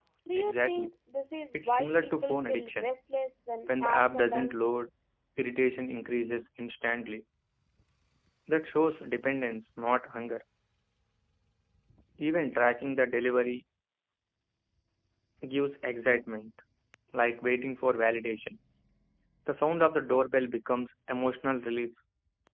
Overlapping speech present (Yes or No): Yes